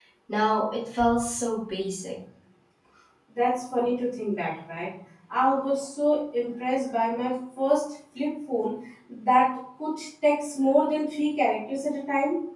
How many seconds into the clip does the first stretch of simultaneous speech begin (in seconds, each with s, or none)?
none